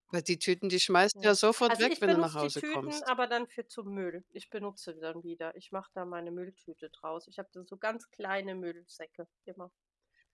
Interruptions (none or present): present